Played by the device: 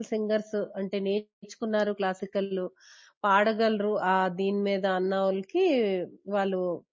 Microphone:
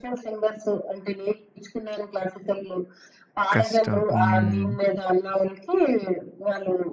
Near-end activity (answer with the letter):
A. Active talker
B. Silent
A